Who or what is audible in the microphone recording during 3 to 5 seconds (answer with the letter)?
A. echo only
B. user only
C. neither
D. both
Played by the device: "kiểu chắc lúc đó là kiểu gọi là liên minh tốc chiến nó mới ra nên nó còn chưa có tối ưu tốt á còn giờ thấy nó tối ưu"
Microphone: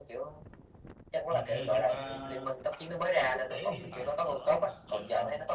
D